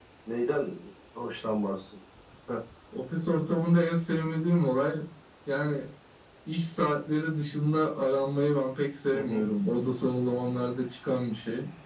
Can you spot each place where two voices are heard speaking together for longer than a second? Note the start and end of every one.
none

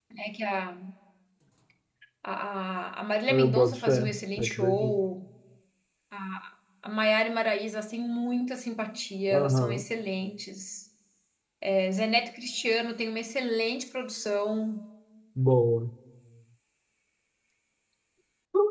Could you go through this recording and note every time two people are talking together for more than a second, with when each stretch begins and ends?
3.3-5.0

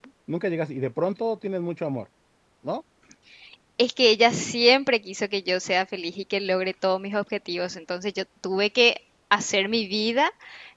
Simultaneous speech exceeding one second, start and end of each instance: none

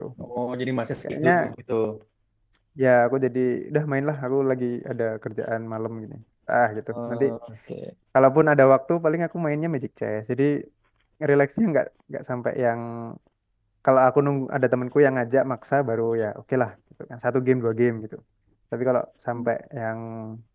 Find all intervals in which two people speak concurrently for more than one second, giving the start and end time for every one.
none

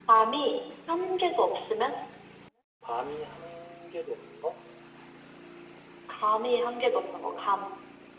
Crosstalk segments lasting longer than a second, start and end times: none

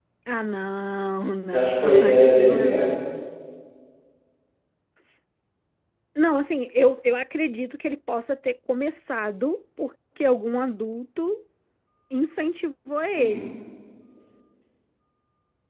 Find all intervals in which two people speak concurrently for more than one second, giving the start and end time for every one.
1.5-3.0

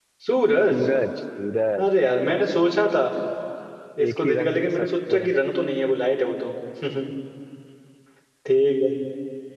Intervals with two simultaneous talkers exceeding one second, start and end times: 4.1-5.3

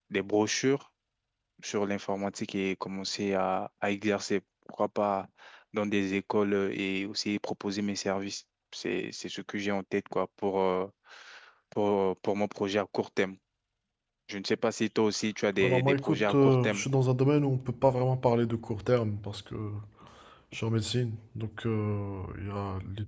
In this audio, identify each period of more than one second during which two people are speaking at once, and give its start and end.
15.6-16.8

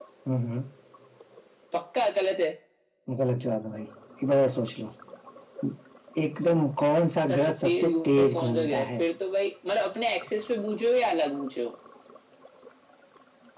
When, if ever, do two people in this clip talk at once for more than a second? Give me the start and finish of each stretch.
7.3-9.0

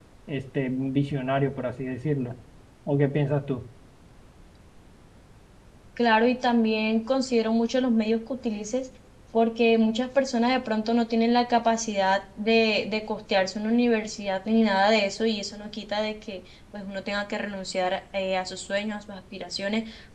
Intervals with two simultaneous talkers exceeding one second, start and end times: none

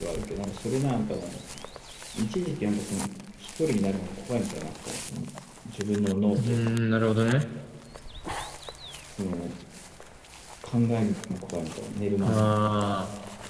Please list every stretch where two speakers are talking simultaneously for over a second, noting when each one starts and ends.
none

